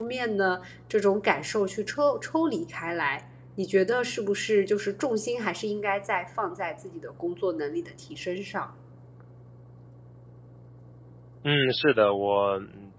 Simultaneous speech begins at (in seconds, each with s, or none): none